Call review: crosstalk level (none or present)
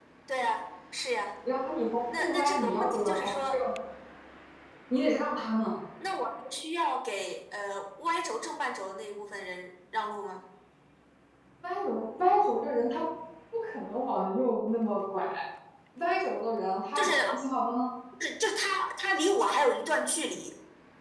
present